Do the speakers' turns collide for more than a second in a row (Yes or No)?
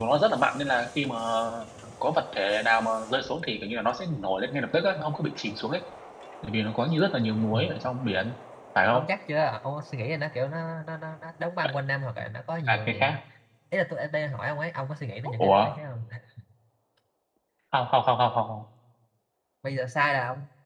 No